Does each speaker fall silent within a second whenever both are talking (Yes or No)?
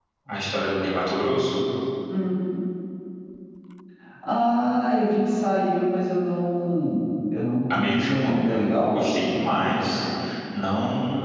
No